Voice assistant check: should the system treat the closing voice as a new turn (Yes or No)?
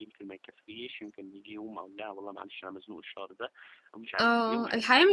Yes